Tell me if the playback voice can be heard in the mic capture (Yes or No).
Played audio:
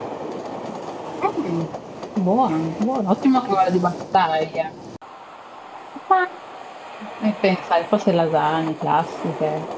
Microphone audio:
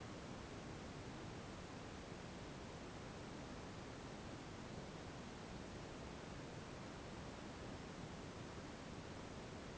No